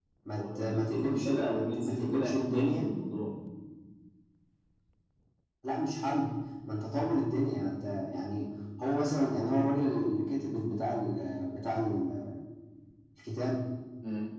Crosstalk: present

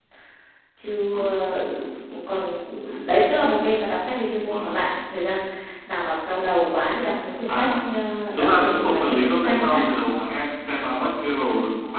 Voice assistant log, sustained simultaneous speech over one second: present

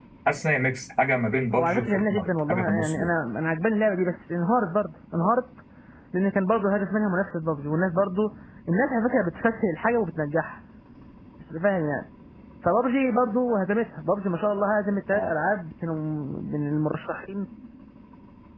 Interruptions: present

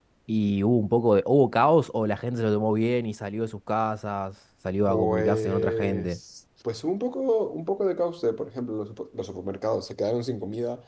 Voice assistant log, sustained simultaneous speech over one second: present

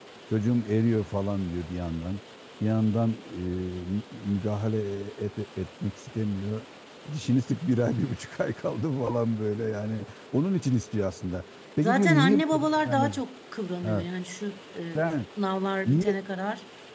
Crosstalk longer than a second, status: present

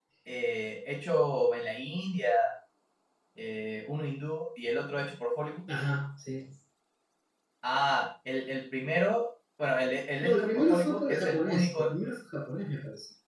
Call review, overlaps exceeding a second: present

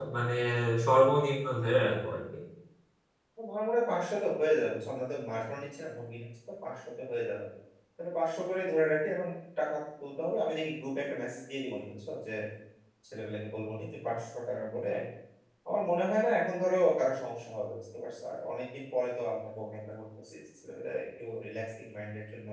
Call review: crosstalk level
none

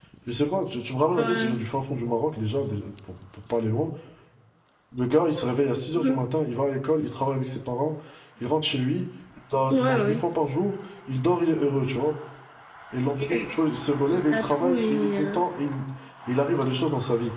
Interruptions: present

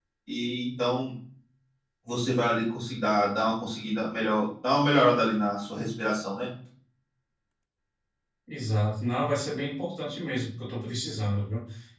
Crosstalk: none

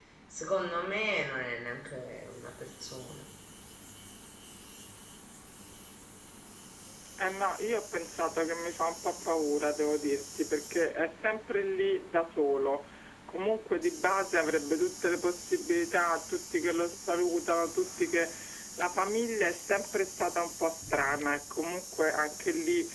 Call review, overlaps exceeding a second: none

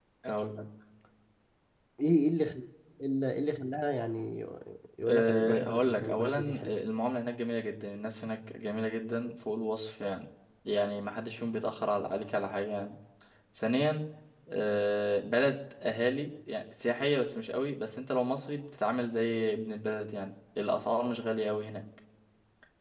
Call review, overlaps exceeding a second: present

